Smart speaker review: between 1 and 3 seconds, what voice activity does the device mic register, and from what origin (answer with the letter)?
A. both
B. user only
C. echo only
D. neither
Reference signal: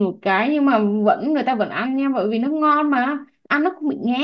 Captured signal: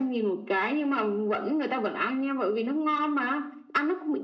C